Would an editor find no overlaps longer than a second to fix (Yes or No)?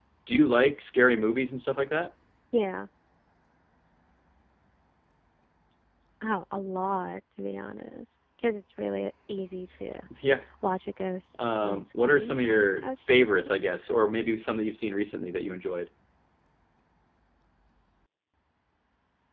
No